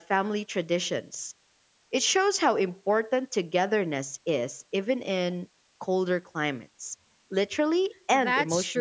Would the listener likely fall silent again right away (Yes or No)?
No